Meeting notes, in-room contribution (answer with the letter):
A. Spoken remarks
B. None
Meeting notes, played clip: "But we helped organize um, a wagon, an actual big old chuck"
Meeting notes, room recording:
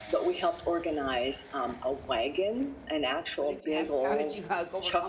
A